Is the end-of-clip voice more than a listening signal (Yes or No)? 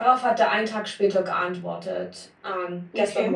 No